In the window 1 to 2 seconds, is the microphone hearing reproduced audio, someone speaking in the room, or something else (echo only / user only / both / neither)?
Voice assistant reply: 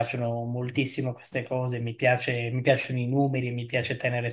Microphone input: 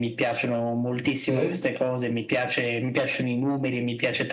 both